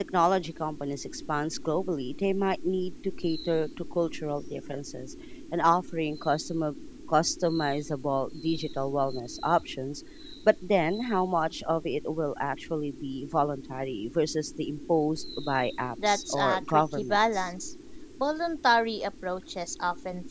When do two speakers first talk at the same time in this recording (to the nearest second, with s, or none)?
16 s